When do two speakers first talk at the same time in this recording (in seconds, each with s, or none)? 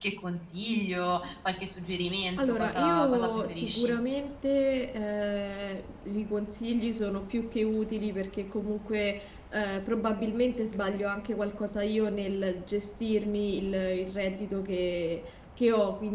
2.4 s